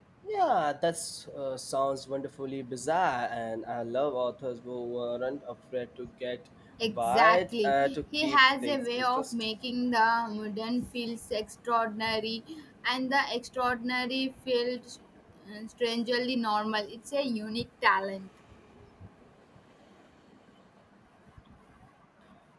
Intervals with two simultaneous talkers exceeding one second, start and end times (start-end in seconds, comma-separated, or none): 7.0-9.3